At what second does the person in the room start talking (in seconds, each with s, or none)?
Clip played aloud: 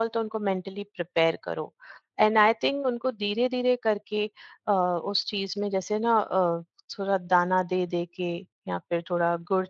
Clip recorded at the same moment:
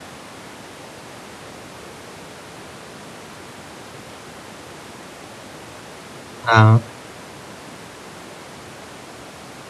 6.5 s